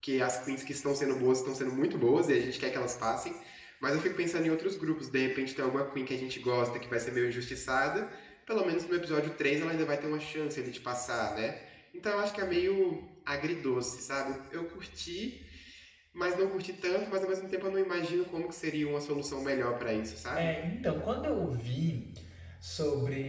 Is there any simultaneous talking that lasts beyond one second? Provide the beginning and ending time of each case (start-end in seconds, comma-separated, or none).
none